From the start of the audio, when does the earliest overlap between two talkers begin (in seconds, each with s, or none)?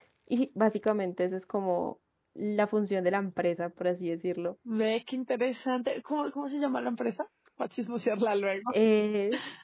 none